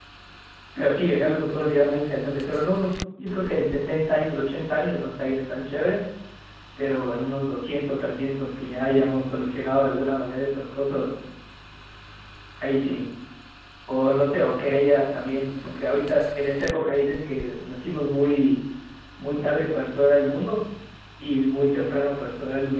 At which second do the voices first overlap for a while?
none

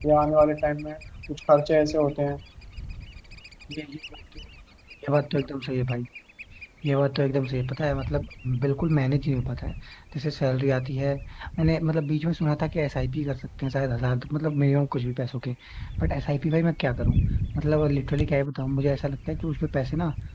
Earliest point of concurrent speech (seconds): none

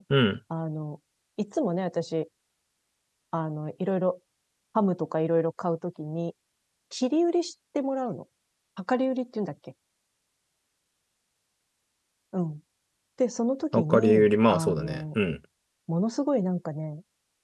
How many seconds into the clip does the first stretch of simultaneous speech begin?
13.7 s

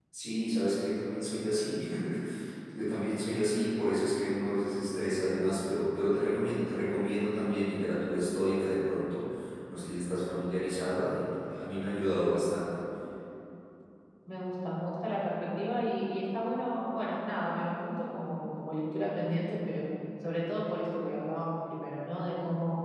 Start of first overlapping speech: none

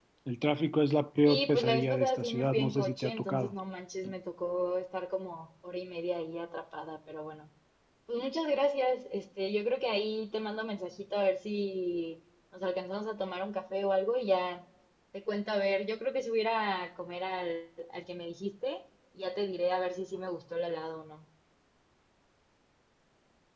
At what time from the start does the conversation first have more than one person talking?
1.2 s

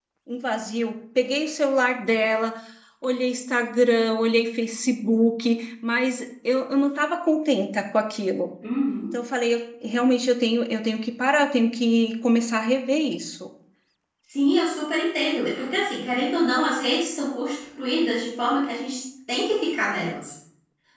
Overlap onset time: none

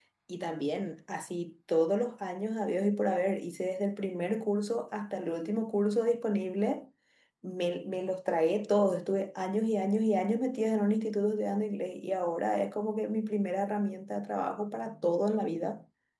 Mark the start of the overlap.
none

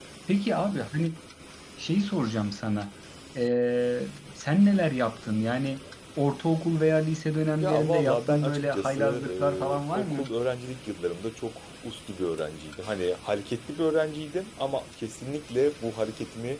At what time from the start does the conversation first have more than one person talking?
7.6 s

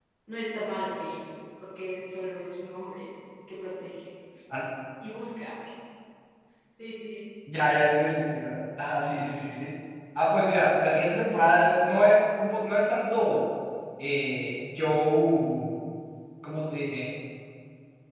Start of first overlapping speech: none

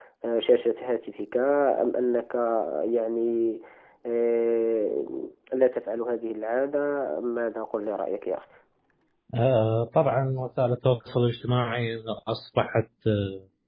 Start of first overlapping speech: none

